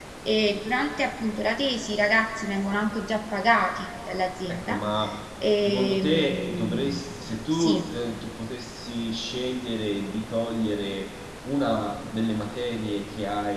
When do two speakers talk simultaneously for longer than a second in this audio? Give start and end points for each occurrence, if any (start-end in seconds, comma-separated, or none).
5.6-7.0